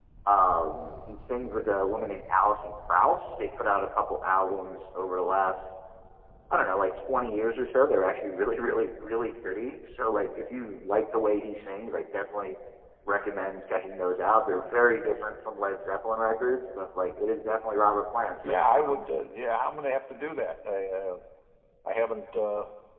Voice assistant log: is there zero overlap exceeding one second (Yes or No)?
Yes